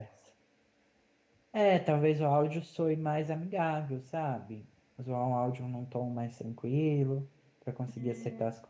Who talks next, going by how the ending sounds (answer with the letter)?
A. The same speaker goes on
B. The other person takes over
B